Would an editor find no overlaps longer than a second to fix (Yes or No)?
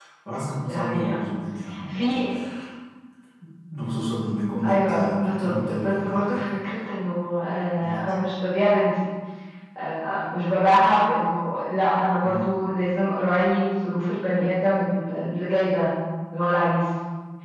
No